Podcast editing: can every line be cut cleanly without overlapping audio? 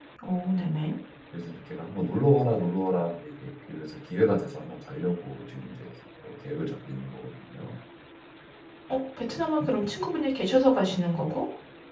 Yes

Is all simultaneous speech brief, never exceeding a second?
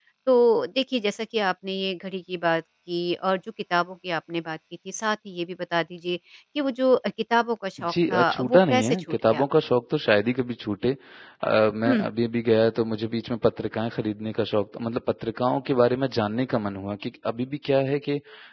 No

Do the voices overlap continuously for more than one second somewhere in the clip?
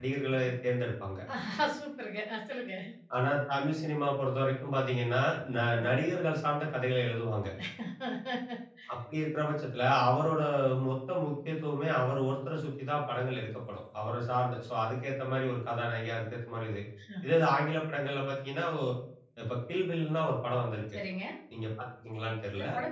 No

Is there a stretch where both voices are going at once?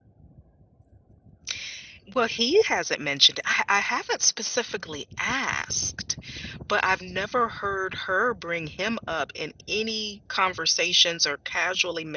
No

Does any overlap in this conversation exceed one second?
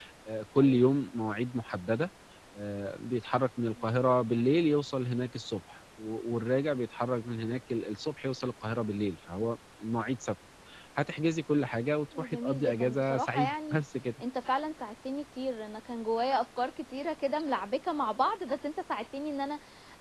Yes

